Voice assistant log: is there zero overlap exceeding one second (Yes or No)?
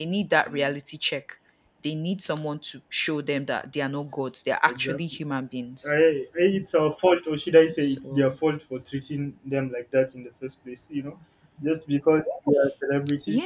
Yes